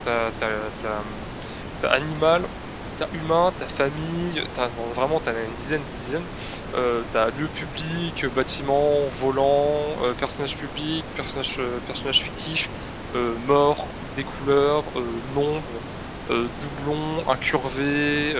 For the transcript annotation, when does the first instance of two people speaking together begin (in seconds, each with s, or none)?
none